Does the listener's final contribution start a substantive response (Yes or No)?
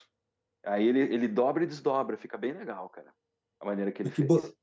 Yes